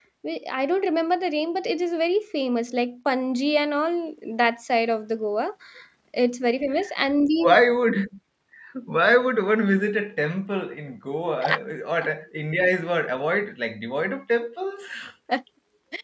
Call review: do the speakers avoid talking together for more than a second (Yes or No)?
Yes